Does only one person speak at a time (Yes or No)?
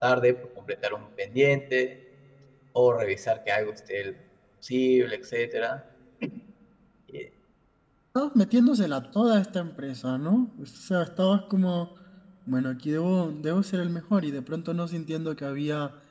Yes